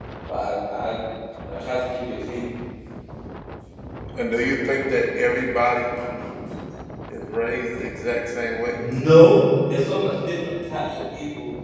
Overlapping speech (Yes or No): No